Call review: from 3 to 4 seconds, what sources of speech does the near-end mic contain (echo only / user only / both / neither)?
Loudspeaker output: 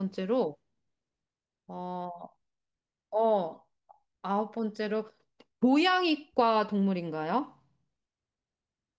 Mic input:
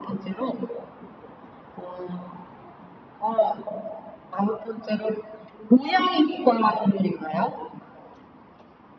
echo only